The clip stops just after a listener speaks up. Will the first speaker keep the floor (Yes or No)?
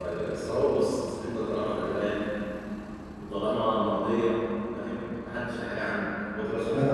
No